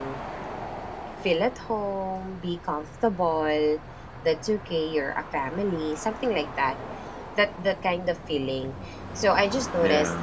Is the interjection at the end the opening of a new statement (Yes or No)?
No